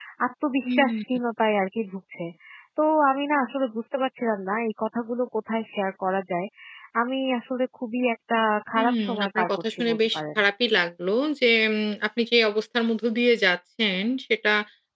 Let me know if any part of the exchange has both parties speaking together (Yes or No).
Yes